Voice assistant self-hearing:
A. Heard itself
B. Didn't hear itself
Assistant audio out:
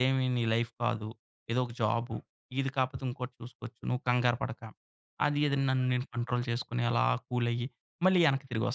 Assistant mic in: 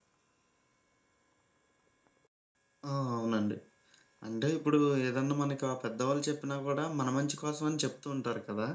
B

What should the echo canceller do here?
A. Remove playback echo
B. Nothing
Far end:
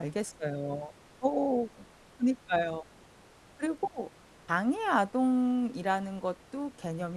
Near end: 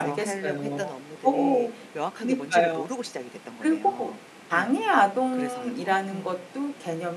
A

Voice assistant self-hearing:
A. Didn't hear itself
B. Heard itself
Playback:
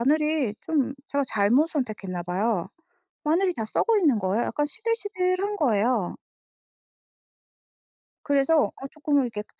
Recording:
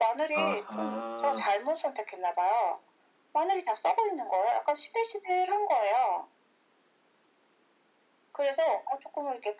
B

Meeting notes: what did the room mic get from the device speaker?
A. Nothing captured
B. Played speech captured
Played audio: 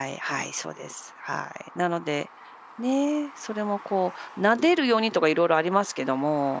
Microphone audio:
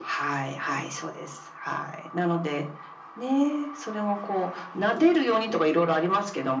B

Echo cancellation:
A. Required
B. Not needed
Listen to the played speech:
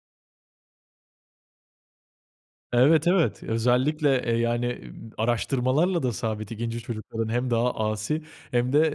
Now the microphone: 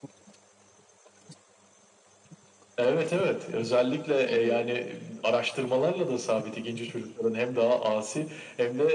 A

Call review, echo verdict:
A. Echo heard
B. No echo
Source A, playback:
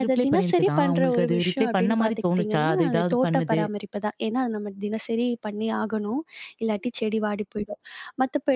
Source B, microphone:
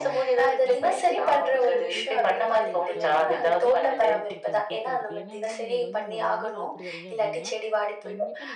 A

